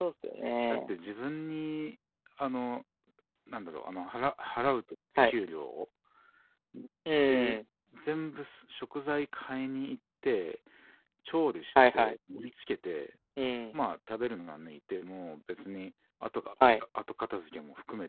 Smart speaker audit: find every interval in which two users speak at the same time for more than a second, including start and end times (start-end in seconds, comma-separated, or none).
none